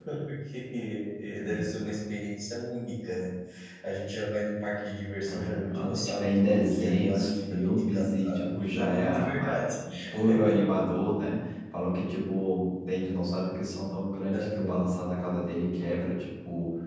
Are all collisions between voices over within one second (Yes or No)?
No